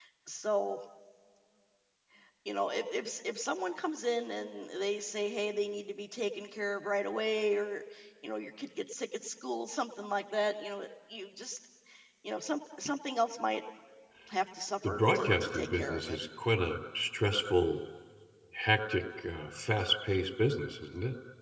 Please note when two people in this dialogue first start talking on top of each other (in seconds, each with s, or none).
14.8 s